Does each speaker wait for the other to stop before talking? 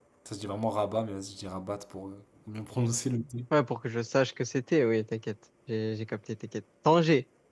Yes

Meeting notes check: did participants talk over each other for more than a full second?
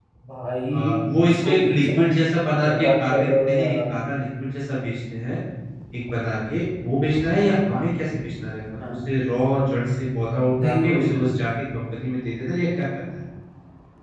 Yes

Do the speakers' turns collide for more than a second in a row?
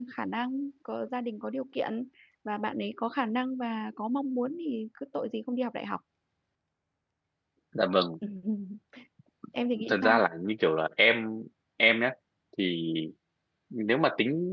No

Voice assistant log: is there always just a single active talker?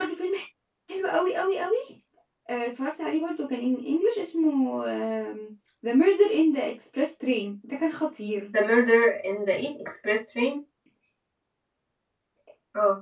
Yes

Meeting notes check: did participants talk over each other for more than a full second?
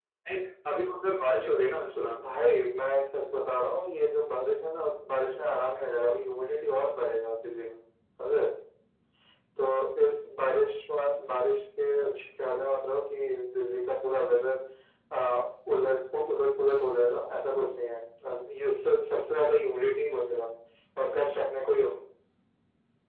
No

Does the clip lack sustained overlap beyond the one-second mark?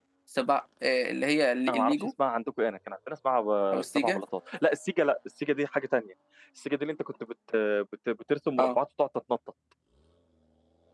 Yes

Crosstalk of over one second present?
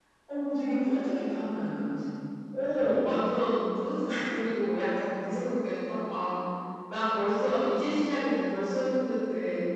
No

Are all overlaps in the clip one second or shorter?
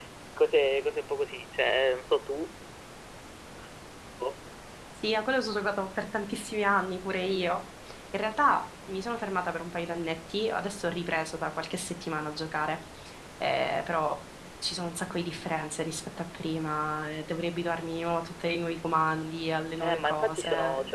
No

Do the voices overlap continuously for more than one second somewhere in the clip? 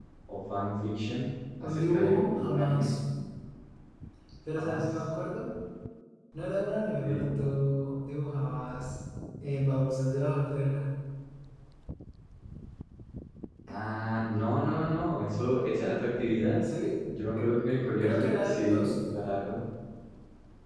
Yes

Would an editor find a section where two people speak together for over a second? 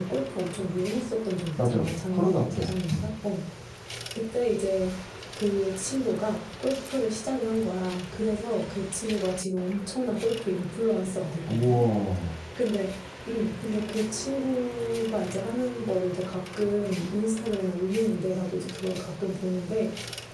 Yes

